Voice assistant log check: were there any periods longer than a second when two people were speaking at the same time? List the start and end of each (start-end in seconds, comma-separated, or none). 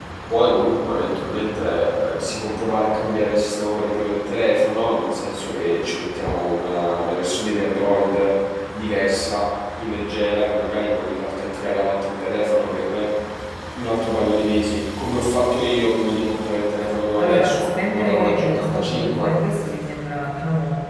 17.2-19.3